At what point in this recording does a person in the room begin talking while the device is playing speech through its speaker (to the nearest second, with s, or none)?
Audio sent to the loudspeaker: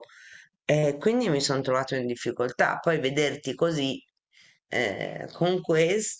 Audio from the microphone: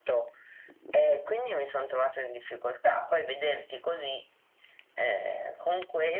none